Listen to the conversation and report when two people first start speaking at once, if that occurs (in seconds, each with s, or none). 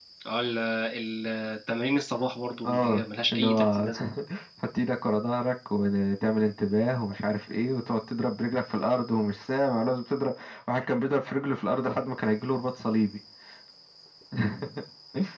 2.6 s